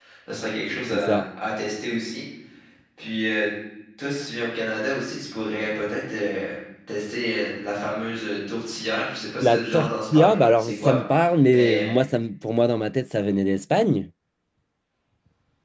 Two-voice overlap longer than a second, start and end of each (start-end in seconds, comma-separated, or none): 9.4-11.0